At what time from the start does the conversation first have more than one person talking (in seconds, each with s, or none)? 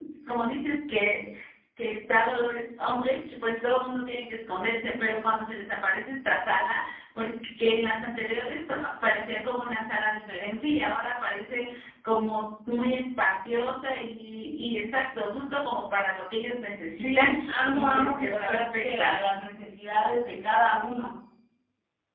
17.0 s